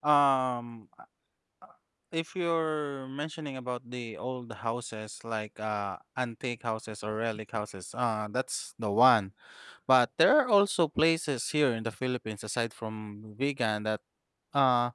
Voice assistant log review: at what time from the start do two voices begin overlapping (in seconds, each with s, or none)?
none